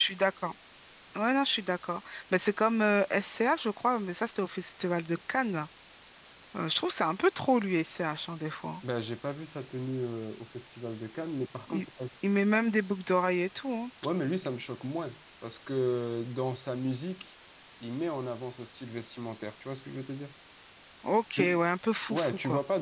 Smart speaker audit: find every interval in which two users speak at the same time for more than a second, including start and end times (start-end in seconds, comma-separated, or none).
none